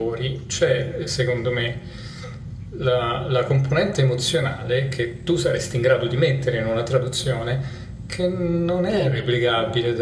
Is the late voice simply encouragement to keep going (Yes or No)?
Yes